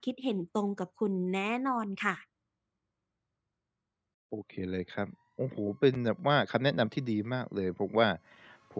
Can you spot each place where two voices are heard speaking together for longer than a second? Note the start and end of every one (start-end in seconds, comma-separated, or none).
none